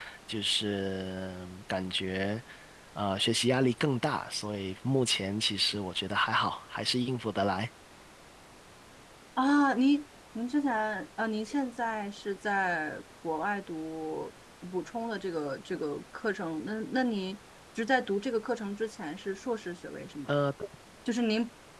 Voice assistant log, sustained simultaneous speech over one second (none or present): none